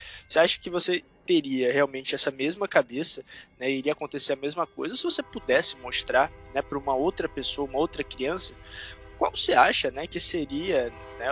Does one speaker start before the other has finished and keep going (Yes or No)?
No